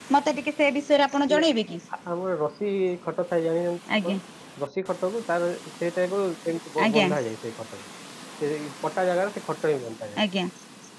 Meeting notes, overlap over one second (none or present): none